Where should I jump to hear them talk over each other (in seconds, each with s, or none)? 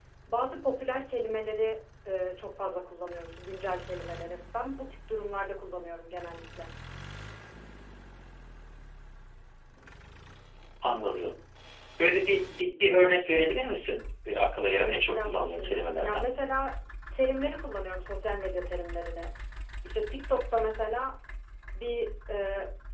14.7 s